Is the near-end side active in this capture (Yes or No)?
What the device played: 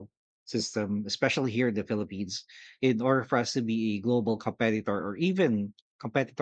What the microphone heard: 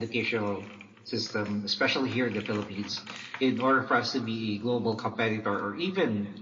No